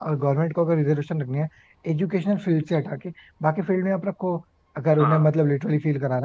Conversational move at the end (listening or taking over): listening